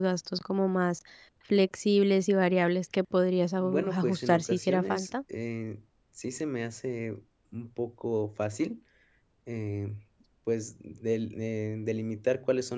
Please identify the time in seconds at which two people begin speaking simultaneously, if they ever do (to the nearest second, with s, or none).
4 s